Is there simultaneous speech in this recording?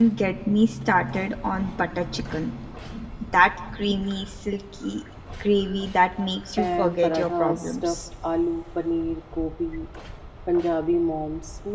Yes, from 6.6 s

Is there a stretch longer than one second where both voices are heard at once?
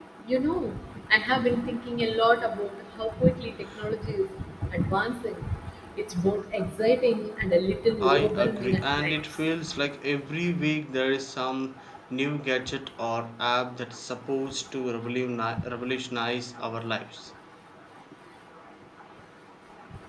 Yes, from 8.0 s

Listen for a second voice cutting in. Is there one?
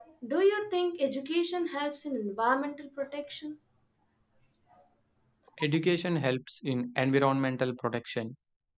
No

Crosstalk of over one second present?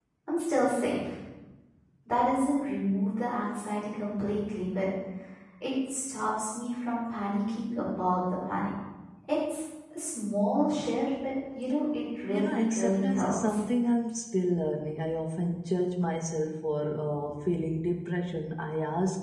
Yes, from 12.3 s

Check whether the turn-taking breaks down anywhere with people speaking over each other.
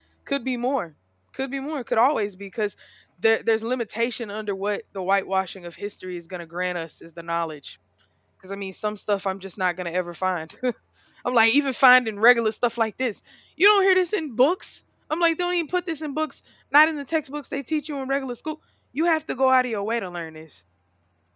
No

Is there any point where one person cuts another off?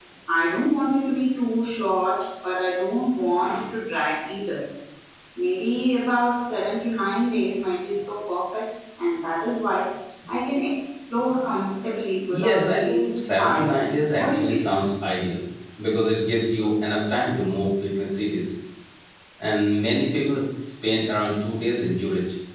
Yes, from 12.3 s

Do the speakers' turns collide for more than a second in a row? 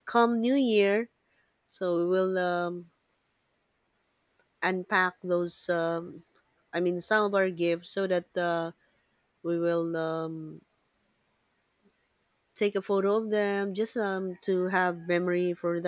No

